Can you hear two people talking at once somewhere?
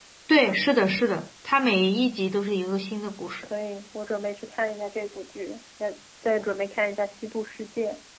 No

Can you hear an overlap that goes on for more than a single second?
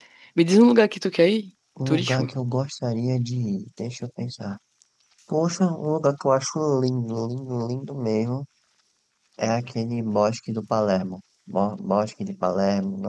No

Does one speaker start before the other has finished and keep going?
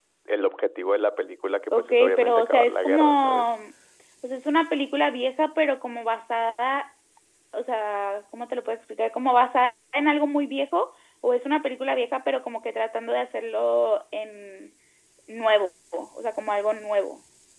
Yes, from 1.7 s

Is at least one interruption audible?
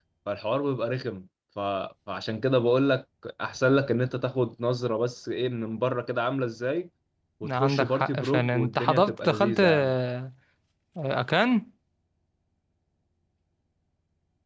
Yes, from 7.4 s

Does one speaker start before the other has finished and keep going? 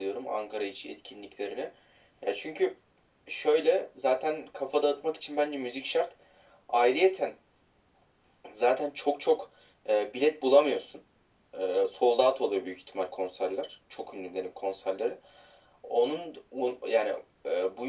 No

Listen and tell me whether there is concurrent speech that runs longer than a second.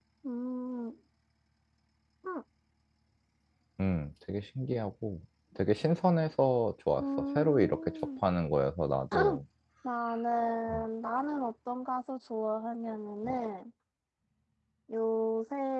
Yes, from 7.0 s

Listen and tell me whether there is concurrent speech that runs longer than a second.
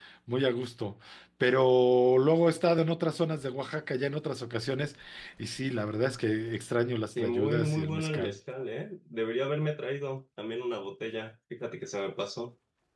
Yes, from 7.2 s

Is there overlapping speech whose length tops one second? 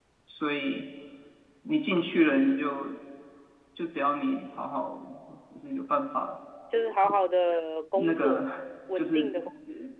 No

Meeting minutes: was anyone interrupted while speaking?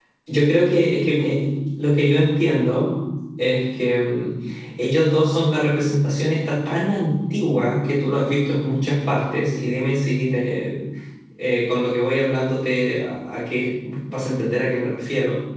No

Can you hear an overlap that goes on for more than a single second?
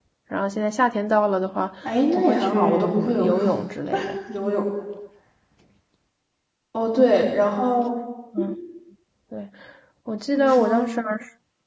Yes, from 2.2 s

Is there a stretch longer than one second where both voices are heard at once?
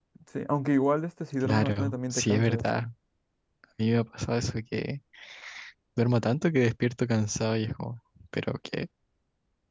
Yes, from 1.4 s

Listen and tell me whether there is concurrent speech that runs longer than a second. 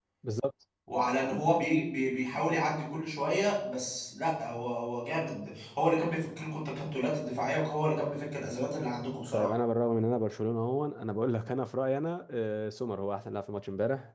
No

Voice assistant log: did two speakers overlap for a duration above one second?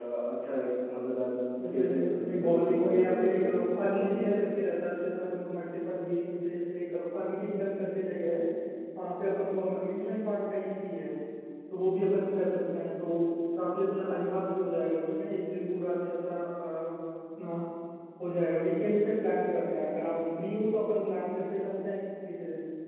Yes, from 1.6 s

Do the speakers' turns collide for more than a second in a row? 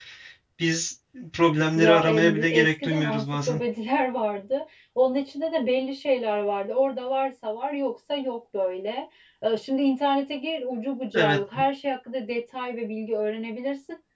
Yes, from 1.8 s

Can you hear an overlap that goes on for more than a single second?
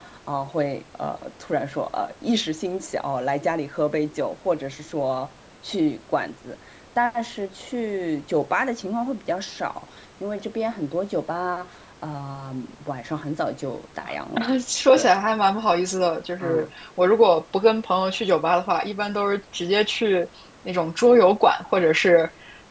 No

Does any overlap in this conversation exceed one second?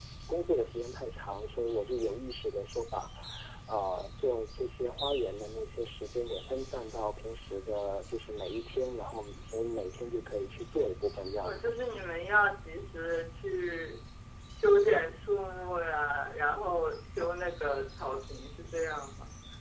No

